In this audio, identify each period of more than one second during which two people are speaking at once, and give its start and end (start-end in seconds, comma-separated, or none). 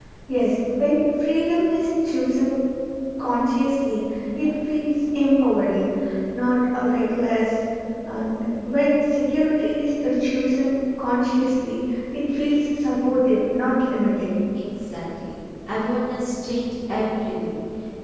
none